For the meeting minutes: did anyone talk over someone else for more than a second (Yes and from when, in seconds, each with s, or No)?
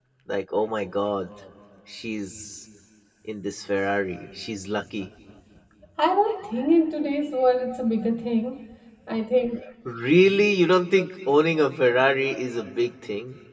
No